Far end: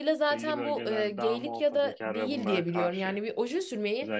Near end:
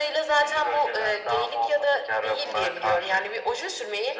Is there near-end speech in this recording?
No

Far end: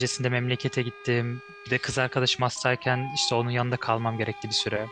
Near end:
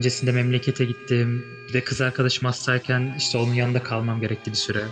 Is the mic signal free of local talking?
Yes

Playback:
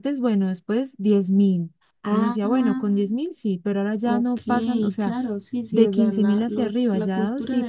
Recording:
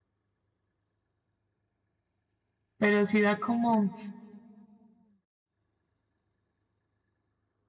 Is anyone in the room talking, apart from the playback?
Yes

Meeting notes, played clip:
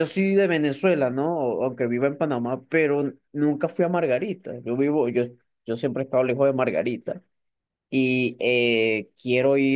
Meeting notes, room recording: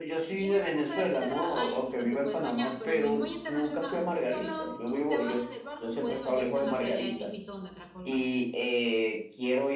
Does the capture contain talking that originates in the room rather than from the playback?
Yes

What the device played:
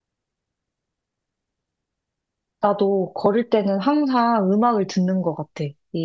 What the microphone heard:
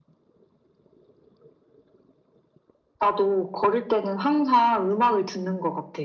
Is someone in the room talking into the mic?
No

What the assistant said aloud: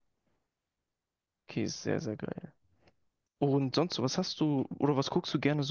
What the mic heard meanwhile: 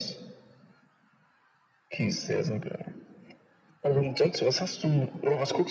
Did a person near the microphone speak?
No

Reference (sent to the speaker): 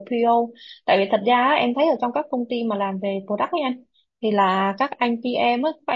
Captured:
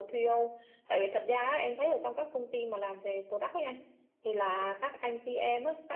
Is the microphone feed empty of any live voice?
Yes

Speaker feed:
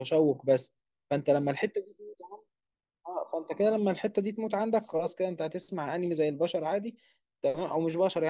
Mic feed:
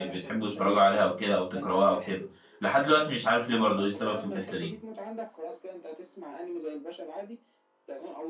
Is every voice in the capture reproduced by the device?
No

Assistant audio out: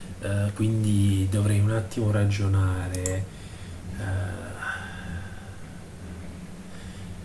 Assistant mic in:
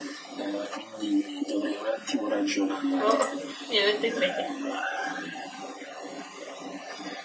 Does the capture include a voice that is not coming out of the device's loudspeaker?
Yes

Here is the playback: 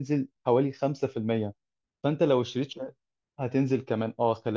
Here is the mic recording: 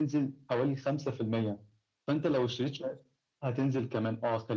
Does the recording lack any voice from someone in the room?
Yes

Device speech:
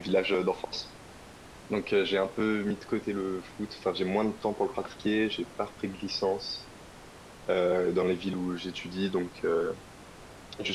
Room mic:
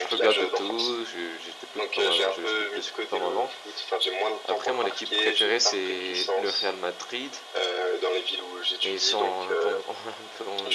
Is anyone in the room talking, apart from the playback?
Yes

